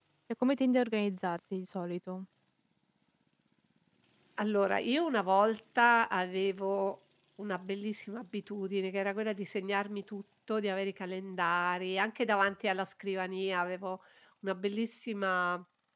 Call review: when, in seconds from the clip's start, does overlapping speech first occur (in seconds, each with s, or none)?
none